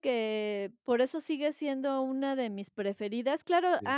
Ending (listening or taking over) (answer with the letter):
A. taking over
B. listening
B